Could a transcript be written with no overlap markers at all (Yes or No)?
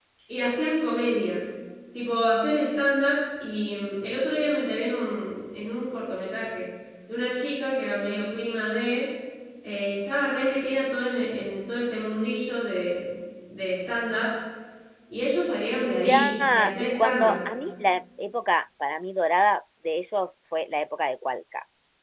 No